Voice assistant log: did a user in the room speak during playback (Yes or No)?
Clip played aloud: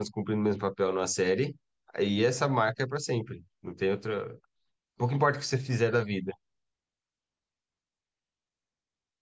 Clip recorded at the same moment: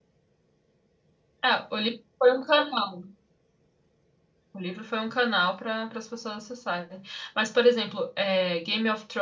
Yes